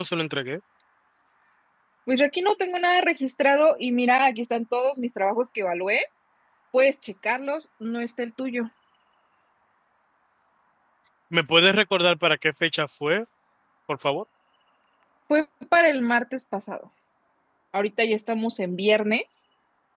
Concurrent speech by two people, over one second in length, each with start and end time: none

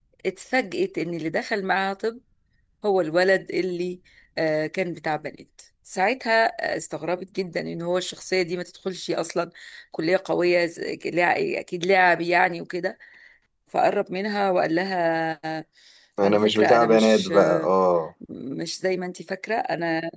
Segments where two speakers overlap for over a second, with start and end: 16.2-17.7

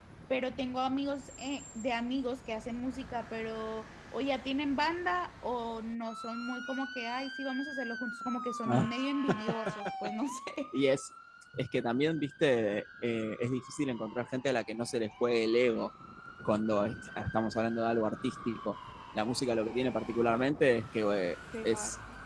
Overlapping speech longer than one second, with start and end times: none

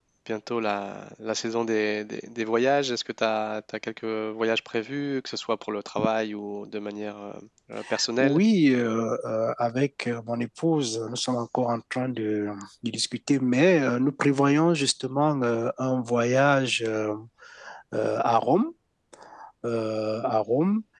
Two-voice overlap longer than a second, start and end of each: none

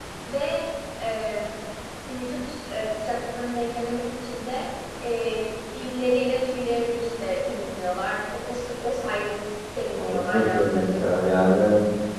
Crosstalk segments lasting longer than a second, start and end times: 10.0-11.4

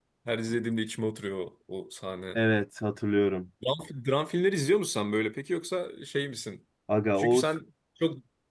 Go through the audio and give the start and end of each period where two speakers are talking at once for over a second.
none

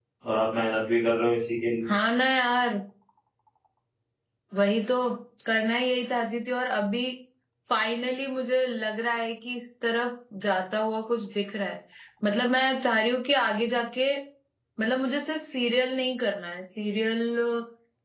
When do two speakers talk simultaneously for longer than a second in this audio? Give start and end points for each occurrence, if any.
none

